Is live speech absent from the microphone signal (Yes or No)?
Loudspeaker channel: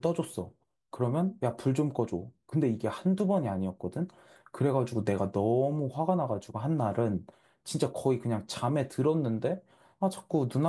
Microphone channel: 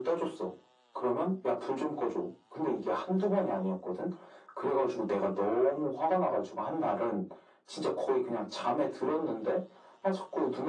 Yes